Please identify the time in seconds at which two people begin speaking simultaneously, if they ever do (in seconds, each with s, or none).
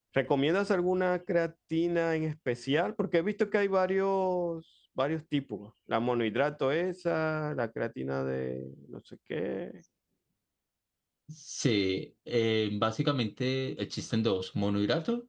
none